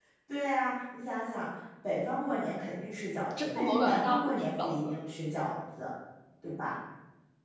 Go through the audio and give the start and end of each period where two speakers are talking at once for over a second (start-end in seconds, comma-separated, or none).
3.4-4.9